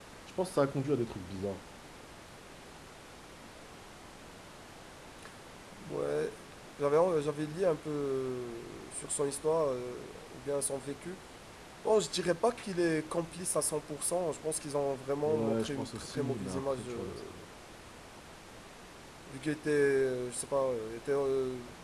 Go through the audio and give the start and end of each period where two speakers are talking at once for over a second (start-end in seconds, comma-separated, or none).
15.2-17.1